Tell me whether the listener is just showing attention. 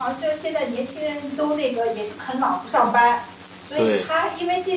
Yes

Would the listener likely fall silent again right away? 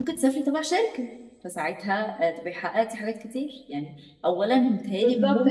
No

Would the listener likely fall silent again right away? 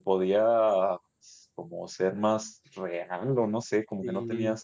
Yes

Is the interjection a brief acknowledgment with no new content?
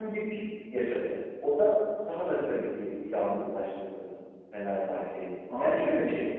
Yes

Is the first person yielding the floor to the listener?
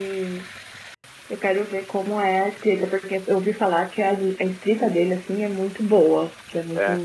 No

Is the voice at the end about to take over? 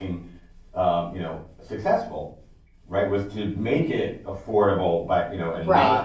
No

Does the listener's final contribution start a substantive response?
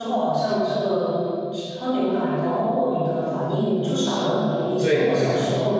No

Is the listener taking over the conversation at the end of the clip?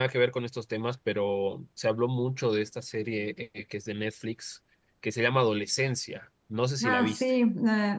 Yes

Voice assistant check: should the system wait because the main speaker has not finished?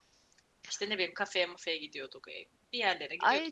No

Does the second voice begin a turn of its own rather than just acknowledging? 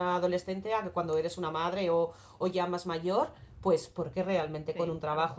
No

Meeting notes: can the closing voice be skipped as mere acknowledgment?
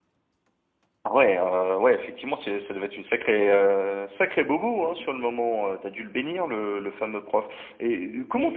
Yes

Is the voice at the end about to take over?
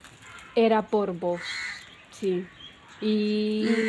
Yes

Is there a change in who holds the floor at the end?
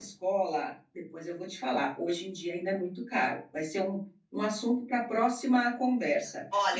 Yes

